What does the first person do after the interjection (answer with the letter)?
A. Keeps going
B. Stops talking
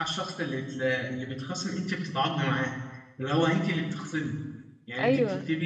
A